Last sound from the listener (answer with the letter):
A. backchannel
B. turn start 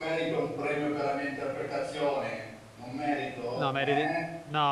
B